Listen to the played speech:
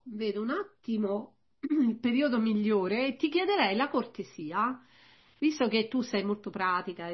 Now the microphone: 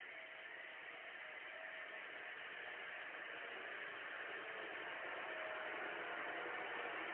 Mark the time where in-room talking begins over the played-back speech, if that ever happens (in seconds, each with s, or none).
none